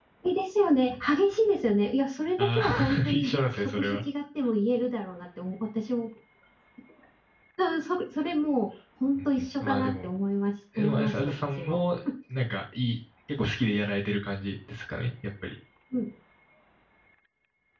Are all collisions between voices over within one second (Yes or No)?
No